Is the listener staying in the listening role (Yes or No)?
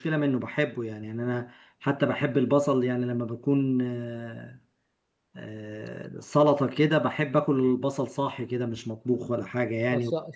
No